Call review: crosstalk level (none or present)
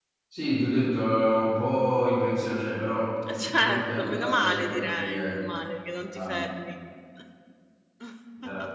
present